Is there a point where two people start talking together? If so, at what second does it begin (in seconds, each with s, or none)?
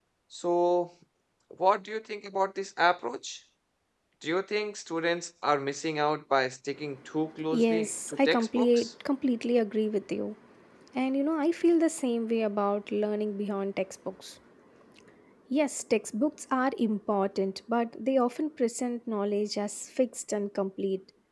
7.5 s